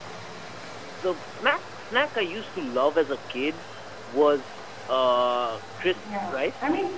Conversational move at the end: taking over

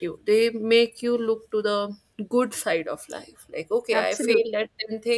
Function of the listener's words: listening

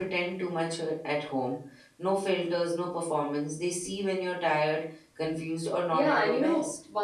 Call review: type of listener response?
taking over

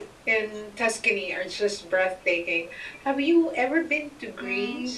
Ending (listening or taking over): taking over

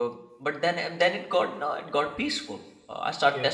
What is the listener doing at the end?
listening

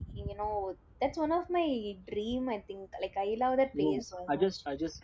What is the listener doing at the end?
taking over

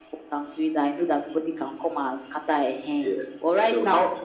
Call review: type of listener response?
taking over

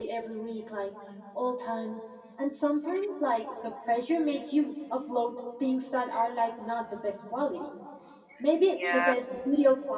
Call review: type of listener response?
listening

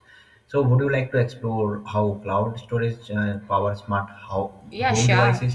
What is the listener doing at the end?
taking over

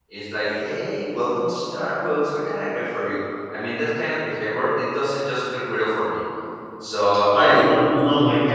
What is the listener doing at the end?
taking over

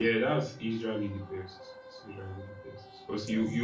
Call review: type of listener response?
listening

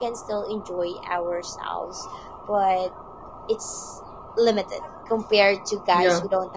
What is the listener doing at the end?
listening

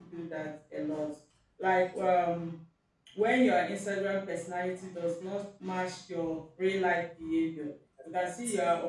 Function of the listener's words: listening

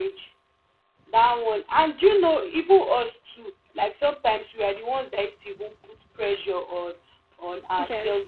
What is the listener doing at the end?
listening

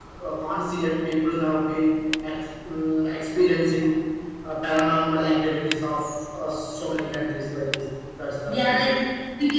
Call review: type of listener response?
taking over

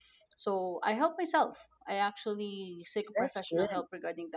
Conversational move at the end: listening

